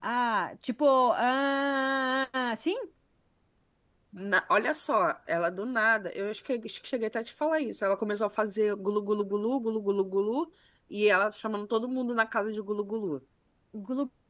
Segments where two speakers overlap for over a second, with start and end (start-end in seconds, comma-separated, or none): none